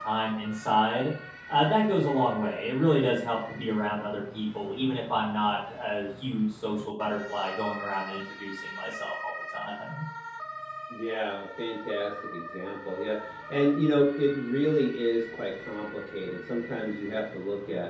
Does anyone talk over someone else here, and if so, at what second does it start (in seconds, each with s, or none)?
none